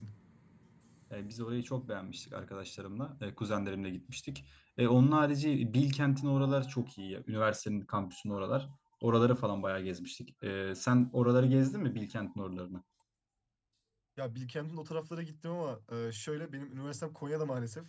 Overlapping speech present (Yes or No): No